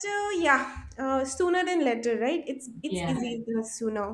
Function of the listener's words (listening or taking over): listening